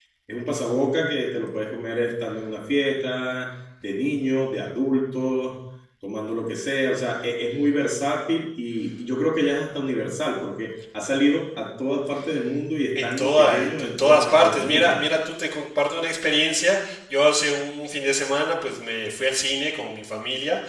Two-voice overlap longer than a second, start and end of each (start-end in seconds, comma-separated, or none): 12.9-14.9